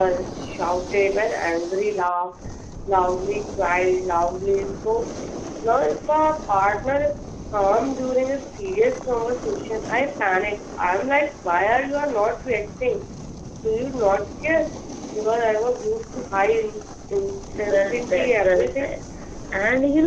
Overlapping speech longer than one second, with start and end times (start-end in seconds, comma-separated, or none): 17.6-19.0